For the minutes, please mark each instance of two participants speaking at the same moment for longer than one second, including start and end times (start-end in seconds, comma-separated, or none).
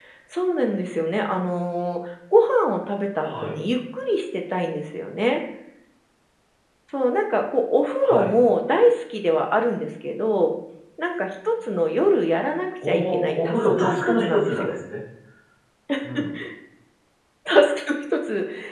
12.9-14.7